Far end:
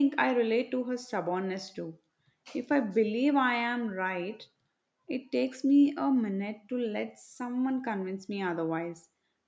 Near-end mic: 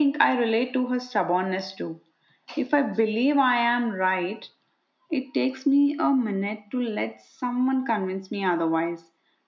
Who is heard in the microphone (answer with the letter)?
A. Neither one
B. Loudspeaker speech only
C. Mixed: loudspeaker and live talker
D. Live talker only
B